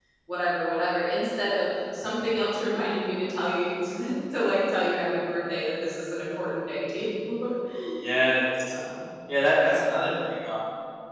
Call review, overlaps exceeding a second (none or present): none